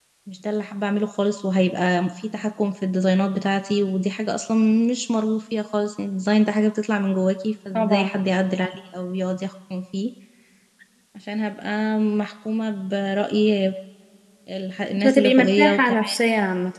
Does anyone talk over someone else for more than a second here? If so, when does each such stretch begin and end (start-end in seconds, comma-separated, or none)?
15.0-16.2